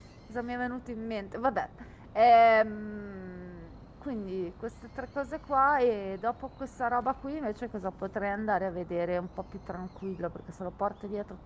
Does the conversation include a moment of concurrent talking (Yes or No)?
No